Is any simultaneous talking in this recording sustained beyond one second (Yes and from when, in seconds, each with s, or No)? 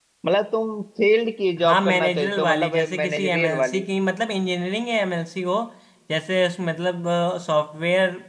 Yes, from 1.6 s